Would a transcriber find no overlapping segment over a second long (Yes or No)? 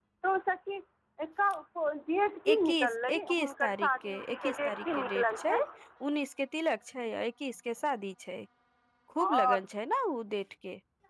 No